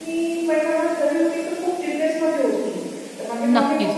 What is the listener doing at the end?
listening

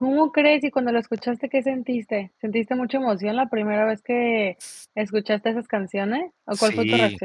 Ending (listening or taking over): taking over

